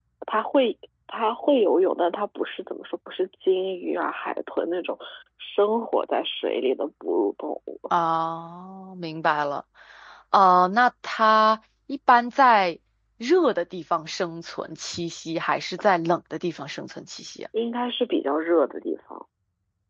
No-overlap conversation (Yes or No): Yes